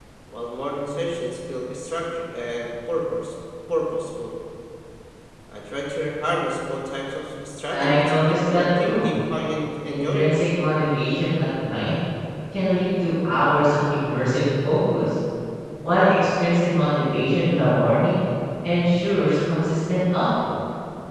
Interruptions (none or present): present